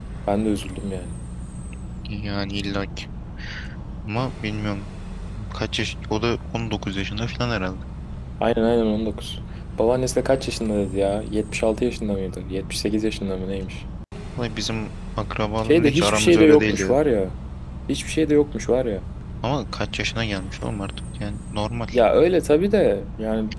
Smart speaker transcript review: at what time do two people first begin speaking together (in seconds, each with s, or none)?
15.6 s